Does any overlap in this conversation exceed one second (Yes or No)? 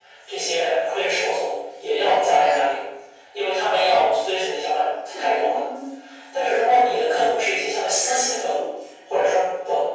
No